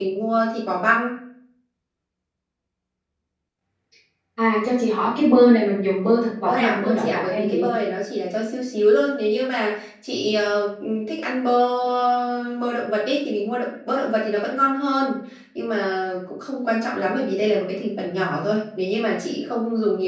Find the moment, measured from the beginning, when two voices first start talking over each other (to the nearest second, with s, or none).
6 s